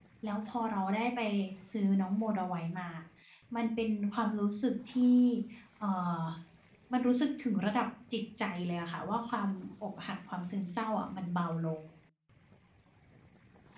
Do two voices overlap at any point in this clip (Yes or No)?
No